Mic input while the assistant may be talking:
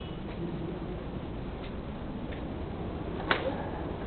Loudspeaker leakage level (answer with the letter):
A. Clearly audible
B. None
B